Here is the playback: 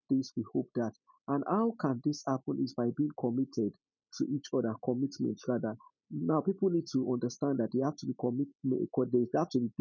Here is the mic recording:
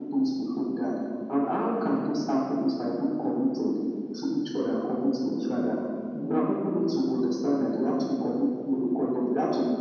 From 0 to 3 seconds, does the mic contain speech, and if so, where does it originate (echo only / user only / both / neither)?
echo only